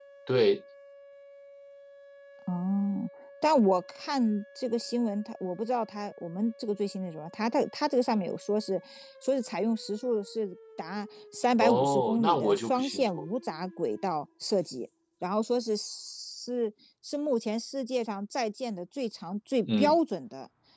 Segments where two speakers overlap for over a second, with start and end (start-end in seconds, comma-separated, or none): 11.6-13.3